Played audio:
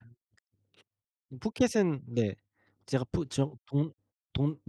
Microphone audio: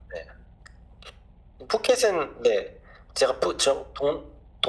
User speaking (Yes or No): No